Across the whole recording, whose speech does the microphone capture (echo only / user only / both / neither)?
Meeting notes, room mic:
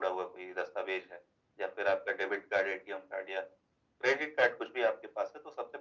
echo only